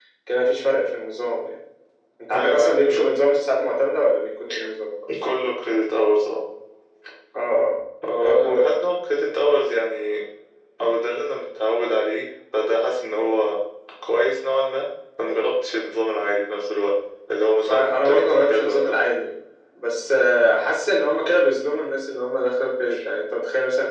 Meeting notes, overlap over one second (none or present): present